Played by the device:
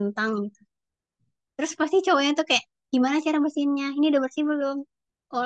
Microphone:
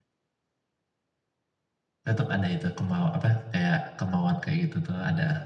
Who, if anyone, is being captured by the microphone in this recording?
user only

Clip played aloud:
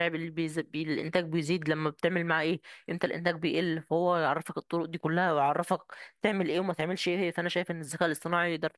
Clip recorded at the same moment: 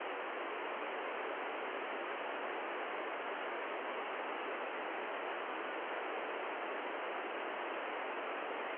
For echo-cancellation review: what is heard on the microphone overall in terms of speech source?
neither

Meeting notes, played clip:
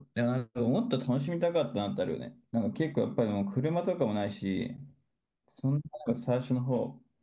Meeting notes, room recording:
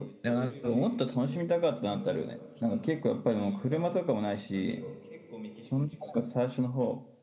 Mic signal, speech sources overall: both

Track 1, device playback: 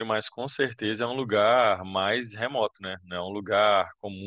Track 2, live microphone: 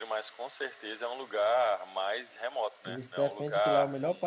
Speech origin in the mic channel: both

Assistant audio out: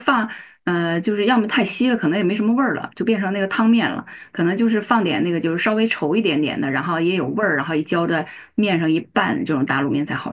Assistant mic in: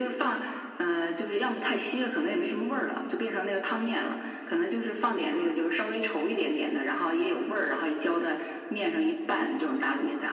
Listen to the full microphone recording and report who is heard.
echo only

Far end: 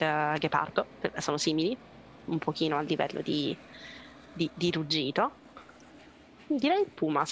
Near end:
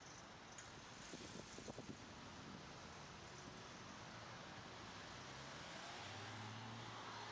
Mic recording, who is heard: neither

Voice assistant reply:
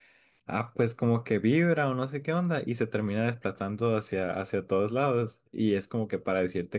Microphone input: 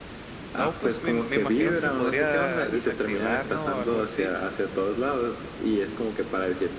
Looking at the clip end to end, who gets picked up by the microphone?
both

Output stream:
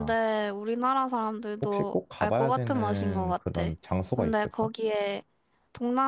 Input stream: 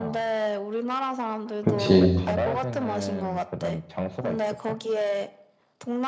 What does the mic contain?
both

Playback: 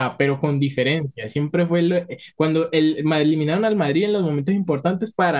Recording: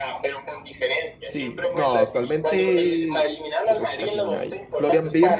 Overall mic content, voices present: both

